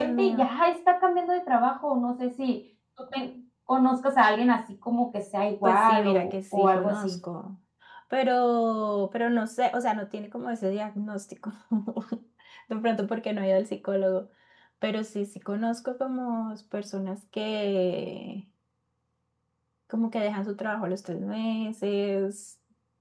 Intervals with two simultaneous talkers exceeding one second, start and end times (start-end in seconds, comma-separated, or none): 5.6-7.2